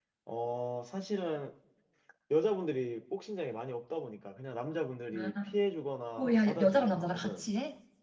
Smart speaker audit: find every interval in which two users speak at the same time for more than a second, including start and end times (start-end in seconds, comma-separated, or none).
6.2-7.5